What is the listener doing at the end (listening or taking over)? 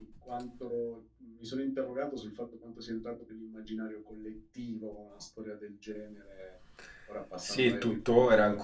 taking over